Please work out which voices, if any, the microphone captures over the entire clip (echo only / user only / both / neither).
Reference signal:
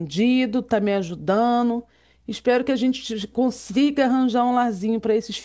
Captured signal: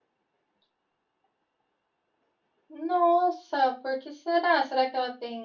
user only